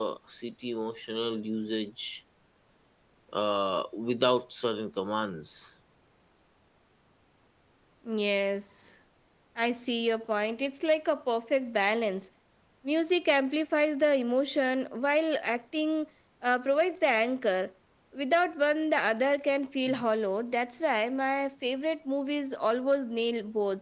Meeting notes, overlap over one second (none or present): none